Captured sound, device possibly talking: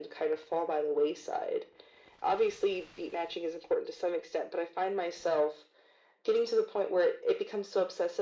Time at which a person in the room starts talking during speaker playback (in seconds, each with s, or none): none